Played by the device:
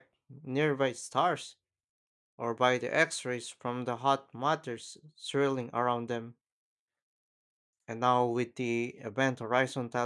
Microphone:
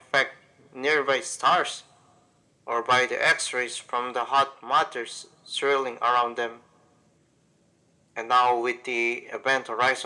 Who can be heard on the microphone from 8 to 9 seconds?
echo only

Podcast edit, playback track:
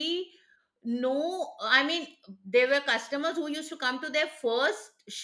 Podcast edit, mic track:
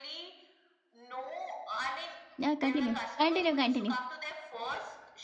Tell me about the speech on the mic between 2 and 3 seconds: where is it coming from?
both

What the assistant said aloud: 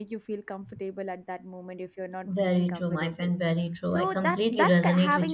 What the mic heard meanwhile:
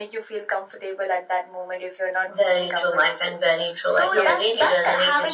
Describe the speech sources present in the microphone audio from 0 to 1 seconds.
echo only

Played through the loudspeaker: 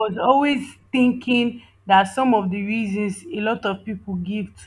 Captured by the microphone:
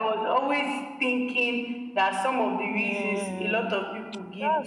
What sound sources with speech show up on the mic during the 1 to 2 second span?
echo only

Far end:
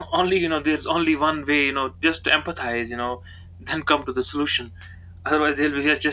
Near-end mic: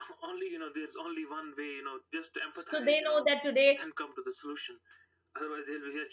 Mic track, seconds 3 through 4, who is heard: both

